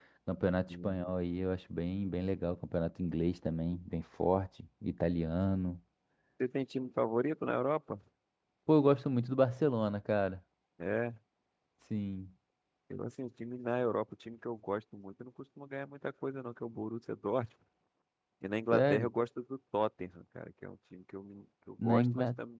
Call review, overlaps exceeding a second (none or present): none